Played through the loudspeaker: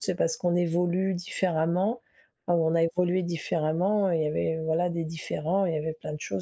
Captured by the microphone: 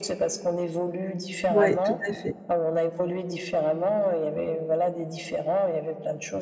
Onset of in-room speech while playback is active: 1.5 s

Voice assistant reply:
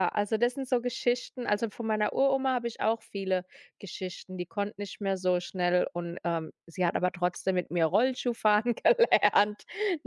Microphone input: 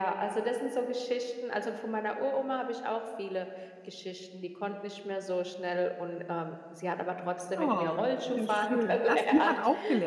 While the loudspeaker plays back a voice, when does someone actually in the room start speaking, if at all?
7.5 s

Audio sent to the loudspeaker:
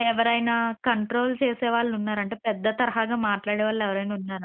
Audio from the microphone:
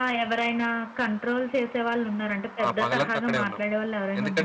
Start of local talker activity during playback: 2.6 s

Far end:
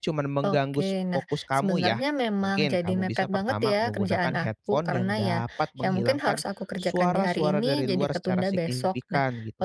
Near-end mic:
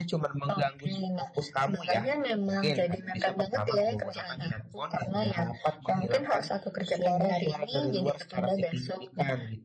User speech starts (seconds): none

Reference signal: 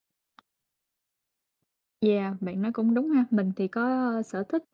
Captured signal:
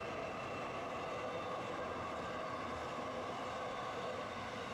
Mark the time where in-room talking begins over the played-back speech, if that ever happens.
none

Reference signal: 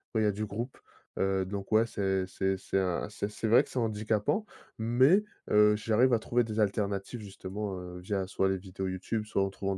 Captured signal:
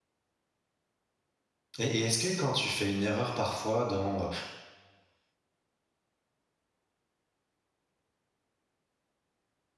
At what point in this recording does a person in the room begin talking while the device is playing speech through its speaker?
1.8 s

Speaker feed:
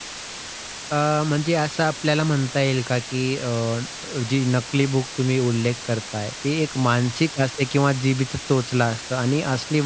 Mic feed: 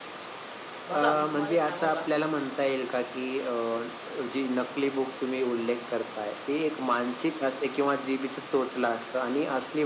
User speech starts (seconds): 0.9 s

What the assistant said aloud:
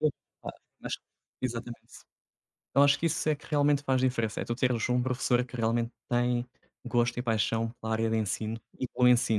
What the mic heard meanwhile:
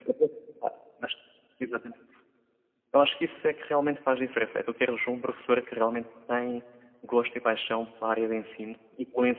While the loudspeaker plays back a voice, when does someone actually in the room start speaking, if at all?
none

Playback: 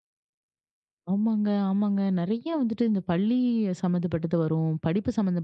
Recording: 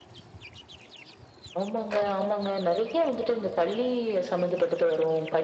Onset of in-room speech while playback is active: none

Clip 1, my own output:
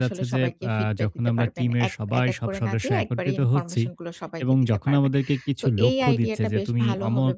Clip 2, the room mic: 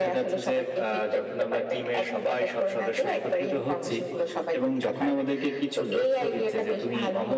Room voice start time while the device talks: none

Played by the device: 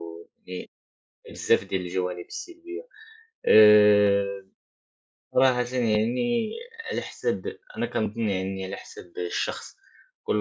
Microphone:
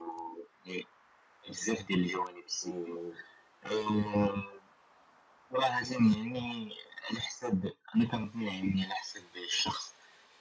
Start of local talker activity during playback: 2.6 s

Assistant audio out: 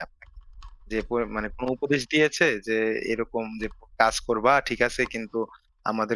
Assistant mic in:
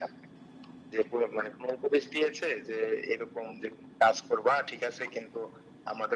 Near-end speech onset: none

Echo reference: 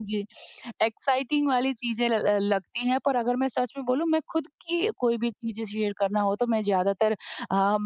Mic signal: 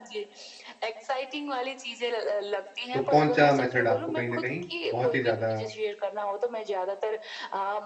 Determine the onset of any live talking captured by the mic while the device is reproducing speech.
2.9 s

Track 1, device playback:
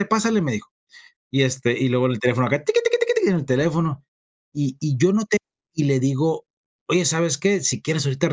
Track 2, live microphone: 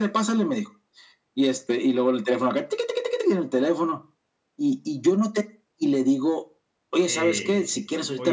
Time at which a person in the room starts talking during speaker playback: 7.0 s

